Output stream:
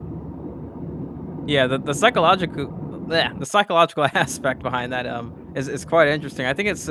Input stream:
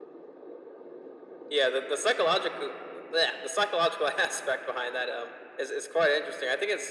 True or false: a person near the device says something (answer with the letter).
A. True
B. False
B